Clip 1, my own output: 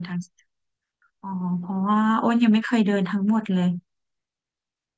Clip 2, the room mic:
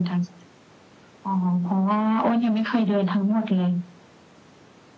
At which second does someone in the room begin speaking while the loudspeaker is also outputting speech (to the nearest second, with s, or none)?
none